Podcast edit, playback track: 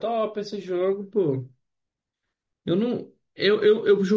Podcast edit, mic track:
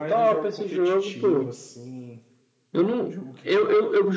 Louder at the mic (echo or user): echo